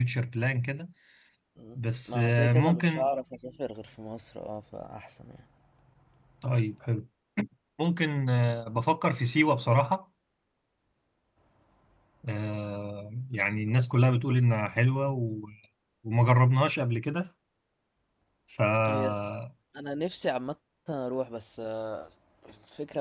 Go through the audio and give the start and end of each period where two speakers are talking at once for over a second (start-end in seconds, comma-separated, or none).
1.8-3.1